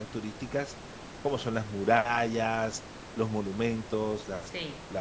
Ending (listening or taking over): listening